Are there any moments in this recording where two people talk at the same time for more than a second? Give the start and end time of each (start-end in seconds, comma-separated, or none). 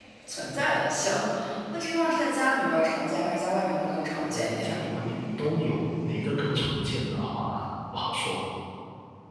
none